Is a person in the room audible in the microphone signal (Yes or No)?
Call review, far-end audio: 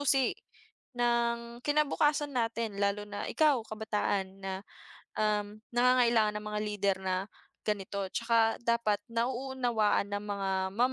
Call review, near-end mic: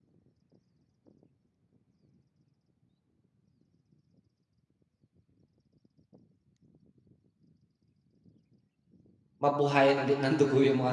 Yes